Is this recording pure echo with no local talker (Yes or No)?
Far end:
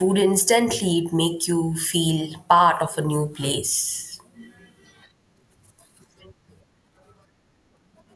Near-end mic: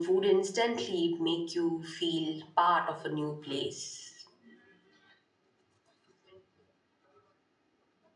Yes